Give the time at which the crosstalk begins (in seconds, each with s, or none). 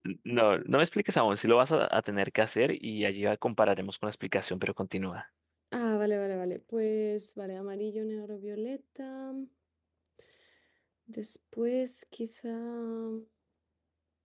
none